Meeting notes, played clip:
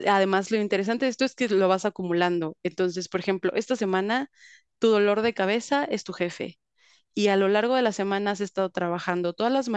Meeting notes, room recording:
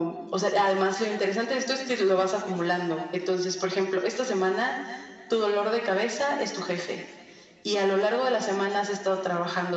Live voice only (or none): none